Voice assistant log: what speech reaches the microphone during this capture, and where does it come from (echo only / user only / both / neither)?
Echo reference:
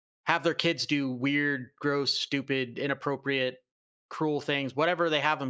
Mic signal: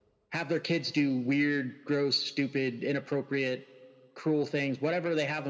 echo only